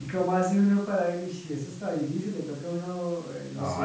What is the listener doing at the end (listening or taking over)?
taking over